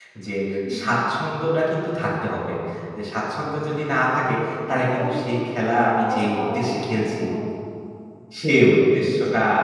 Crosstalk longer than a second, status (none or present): present